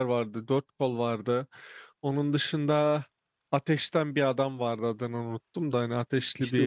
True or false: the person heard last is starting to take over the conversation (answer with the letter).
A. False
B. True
B